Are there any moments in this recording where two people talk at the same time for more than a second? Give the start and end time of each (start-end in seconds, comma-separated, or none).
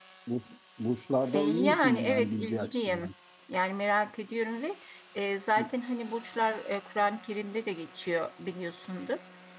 1.3-3.1